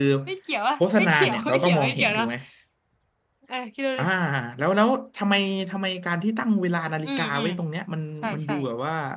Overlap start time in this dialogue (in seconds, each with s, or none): 1.0 s